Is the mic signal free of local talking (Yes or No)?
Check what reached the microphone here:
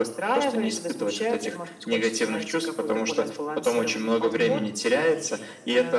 No